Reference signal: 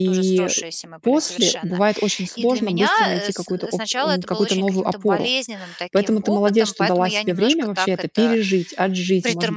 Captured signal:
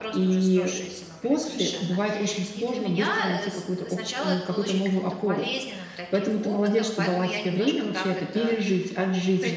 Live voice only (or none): none